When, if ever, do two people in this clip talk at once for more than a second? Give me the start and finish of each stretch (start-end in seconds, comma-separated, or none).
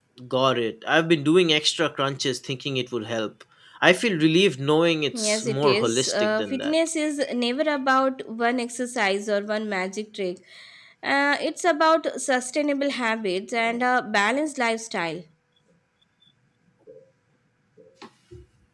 5.1-6.7